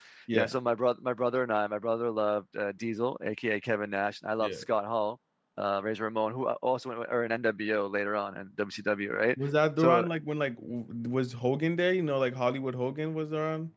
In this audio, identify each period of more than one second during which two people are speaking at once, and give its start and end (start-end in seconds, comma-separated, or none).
none